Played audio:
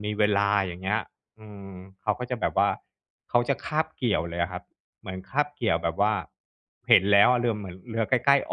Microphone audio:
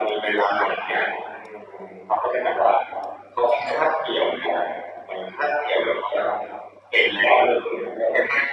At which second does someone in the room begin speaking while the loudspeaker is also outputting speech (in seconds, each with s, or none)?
none